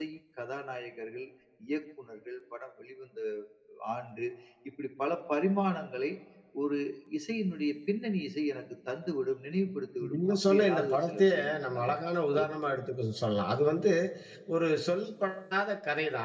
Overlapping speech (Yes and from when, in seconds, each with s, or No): Yes, from 10.0 s